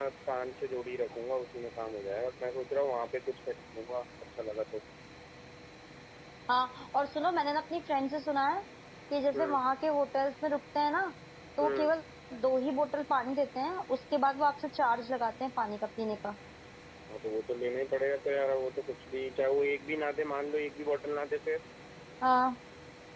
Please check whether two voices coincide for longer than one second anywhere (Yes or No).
No